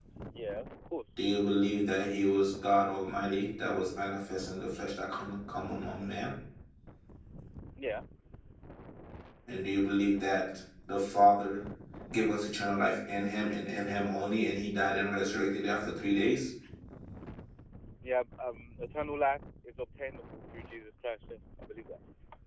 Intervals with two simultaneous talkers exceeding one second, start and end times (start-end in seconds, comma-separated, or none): none